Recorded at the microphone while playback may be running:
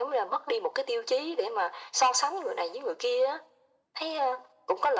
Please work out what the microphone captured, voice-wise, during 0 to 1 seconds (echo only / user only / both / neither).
echo only